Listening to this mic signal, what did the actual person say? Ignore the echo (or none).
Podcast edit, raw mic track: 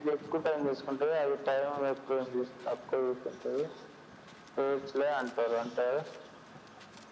none